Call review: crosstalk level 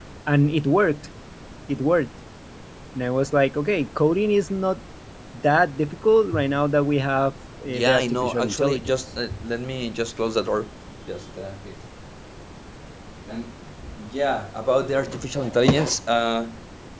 present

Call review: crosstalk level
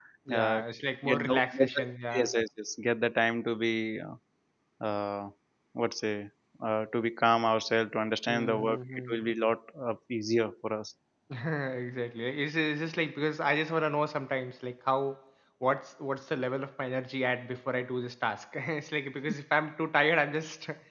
present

